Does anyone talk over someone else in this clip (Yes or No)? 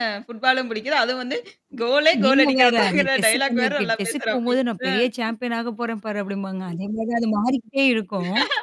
Yes